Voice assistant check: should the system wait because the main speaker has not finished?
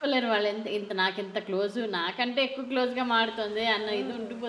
No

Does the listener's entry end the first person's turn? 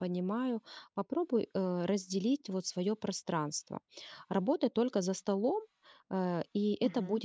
No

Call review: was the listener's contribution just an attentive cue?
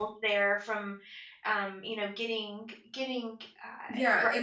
No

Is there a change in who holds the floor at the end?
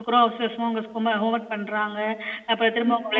No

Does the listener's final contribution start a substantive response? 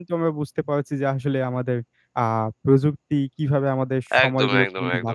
Yes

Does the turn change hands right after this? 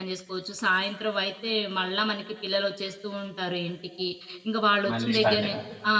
No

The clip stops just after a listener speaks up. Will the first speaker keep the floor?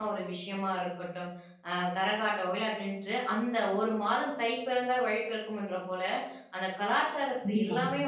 Yes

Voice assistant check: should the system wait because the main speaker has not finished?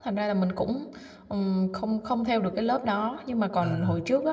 Yes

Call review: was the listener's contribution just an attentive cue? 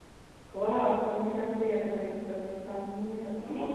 No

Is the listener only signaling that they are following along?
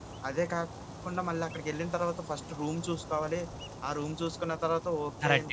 No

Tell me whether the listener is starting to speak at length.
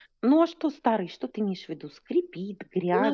Yes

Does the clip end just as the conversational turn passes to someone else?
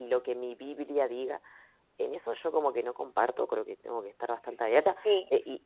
No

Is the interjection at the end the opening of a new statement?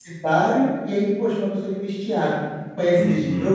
No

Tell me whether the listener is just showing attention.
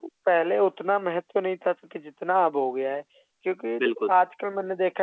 Yes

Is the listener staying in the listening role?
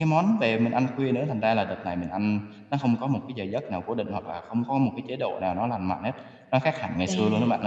No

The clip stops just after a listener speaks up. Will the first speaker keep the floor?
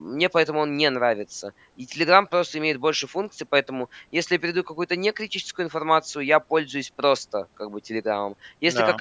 Yes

